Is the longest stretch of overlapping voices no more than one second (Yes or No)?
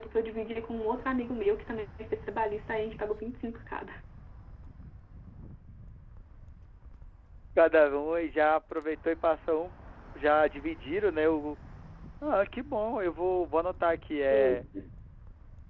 Yes